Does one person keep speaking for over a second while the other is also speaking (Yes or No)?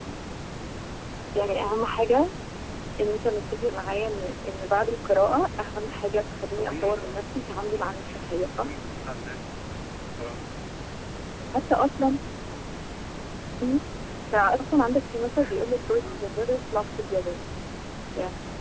Yes